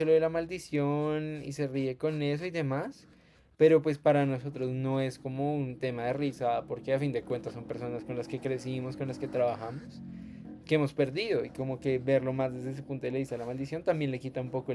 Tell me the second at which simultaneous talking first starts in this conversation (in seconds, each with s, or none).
none